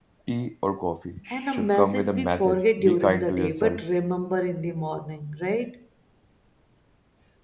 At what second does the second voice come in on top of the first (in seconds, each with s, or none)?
1.3 s